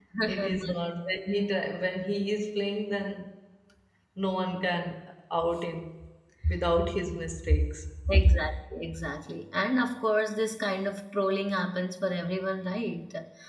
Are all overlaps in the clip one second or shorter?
Yes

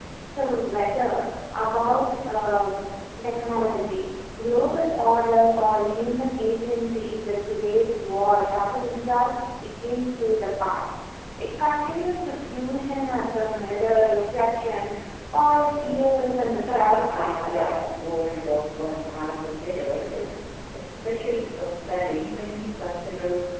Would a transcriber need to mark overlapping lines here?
Yes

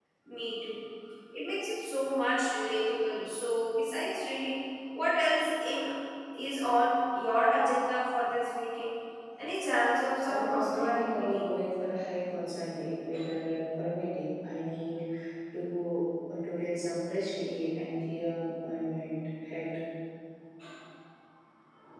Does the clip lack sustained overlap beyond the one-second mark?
No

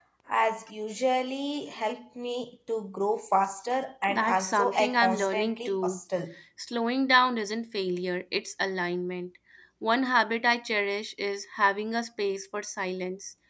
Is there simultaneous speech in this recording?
Yes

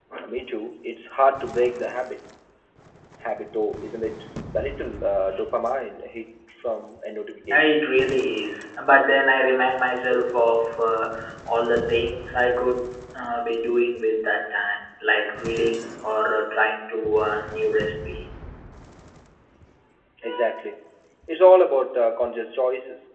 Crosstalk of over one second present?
No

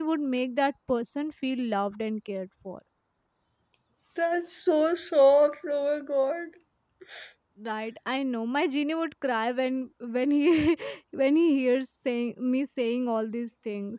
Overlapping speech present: No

